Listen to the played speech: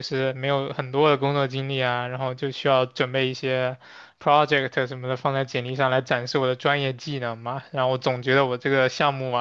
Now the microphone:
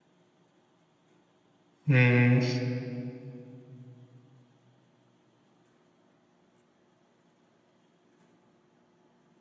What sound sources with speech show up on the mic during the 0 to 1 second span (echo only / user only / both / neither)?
neither